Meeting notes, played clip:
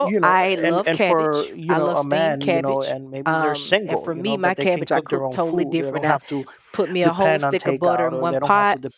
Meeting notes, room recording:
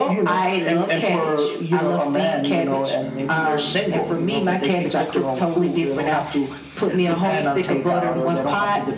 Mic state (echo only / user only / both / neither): echo only